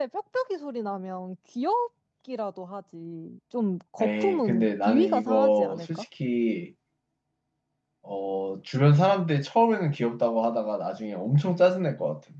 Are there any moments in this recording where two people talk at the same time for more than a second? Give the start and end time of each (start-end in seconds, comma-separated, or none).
4.0-6.0